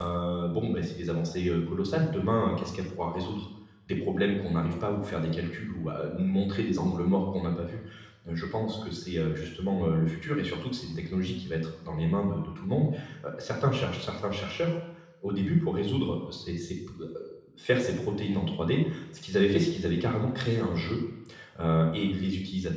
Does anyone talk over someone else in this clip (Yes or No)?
No